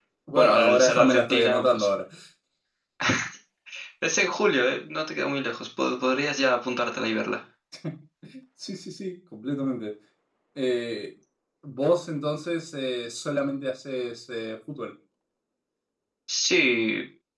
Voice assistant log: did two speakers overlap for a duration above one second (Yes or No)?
Yes